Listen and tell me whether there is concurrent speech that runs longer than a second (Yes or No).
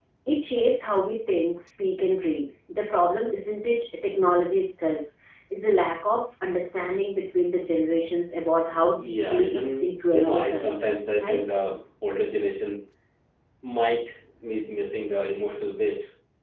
Yes